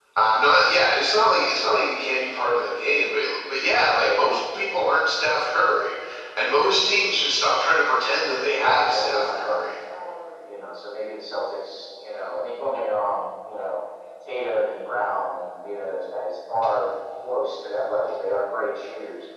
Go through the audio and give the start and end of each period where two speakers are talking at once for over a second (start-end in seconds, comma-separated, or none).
8.4-9.6